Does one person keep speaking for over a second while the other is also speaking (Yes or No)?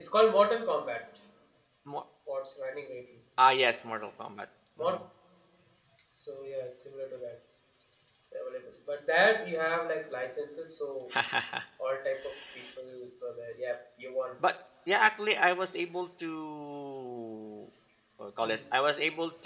No